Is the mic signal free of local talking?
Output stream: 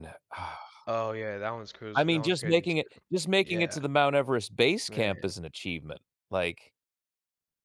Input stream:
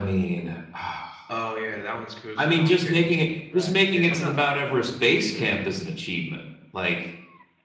No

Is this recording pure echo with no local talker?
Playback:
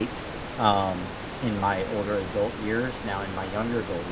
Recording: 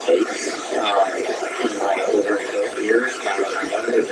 Yes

